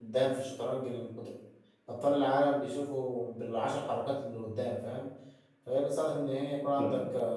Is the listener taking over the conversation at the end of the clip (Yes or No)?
No